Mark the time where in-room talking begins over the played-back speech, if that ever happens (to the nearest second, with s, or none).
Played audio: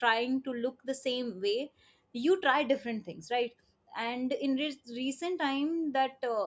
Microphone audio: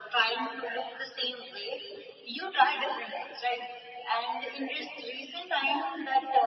none